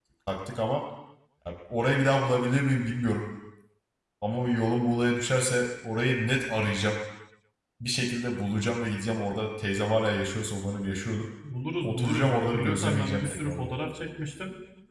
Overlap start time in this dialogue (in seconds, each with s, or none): 11.8 s